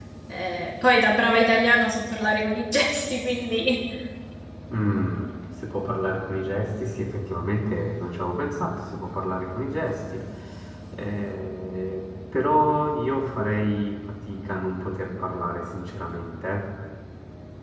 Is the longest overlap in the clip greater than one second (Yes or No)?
No